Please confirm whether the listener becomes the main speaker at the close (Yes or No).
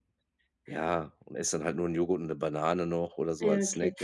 Yes